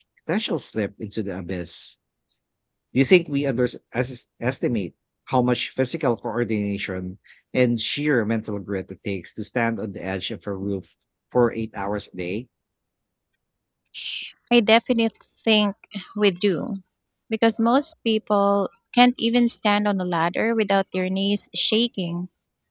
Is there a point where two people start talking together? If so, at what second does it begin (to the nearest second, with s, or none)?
none